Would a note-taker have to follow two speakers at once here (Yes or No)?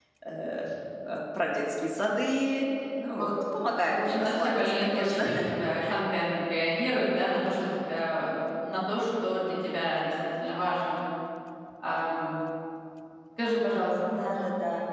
Yes